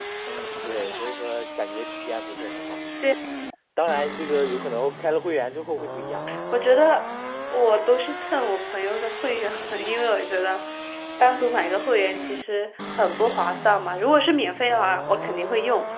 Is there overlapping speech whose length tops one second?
No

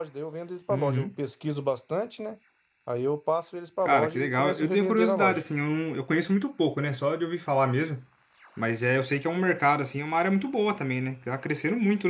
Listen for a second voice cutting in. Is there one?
Yes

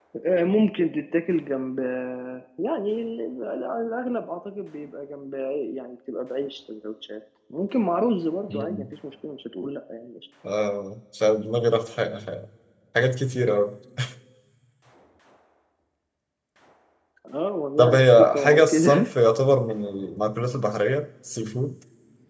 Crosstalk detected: Yes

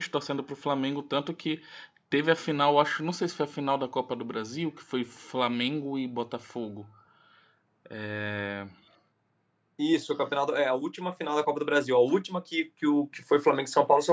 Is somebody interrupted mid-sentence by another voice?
No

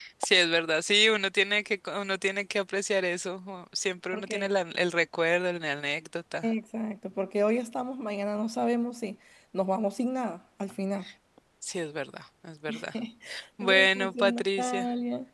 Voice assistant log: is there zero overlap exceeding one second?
No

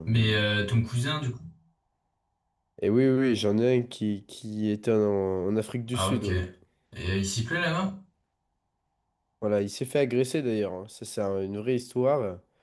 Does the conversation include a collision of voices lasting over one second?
No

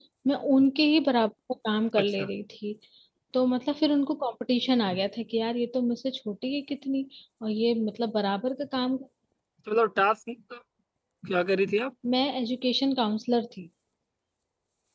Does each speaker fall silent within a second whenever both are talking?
Yes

